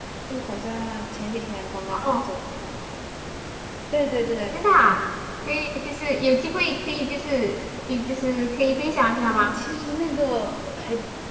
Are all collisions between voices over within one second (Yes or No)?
Yes